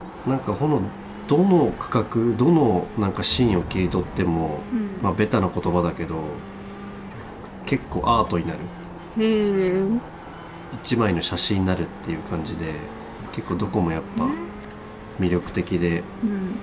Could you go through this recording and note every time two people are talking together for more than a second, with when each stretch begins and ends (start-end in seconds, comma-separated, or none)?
none